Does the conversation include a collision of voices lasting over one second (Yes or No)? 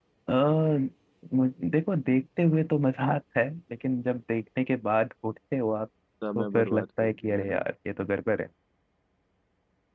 Yes